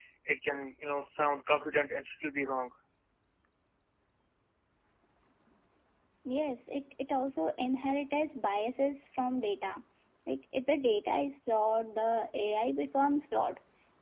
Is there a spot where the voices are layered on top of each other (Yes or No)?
No